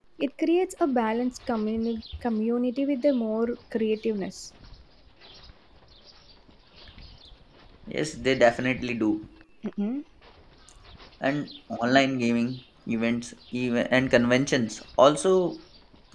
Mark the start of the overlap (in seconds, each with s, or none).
none